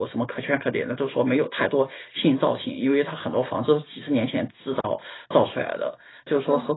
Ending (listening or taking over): listening